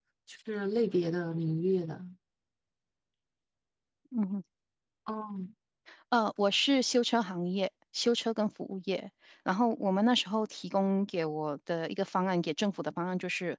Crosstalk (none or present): none